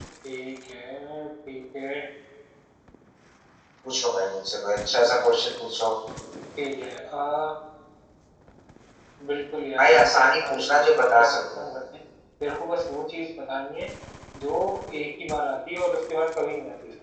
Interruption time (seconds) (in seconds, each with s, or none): 9.8 s